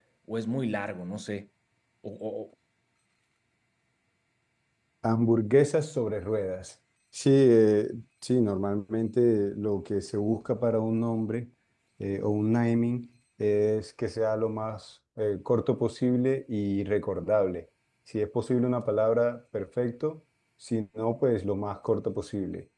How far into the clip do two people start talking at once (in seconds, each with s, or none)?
none